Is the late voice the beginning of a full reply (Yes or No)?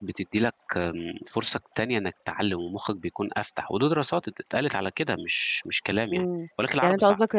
Yes